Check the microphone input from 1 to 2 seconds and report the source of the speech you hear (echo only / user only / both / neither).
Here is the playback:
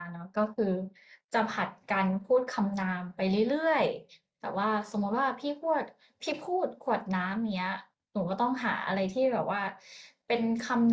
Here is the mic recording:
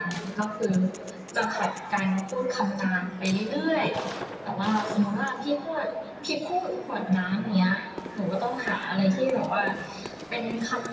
echo only